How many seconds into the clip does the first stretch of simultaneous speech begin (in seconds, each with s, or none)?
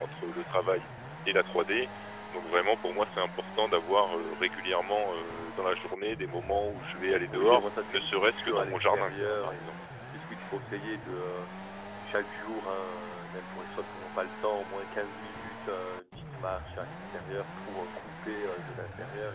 7.3 s